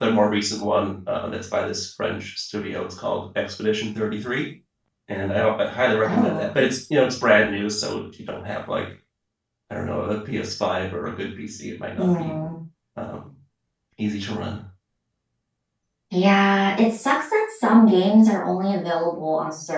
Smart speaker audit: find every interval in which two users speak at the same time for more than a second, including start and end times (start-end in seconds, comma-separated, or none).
none